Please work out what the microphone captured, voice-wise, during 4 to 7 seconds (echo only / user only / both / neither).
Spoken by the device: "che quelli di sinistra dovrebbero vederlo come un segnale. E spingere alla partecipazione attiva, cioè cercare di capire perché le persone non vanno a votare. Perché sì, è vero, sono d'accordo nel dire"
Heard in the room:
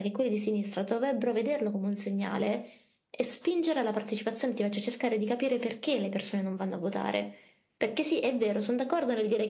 echo only